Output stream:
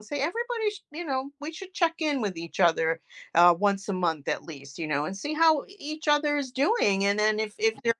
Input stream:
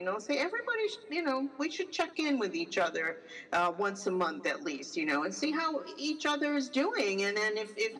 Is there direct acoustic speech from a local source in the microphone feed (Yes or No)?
No